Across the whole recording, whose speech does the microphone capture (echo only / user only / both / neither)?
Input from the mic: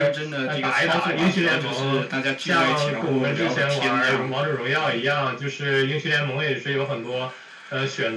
echo only